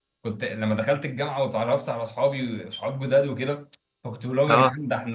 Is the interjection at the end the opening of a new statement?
No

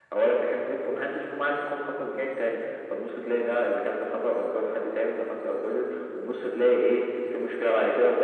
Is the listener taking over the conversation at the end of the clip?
No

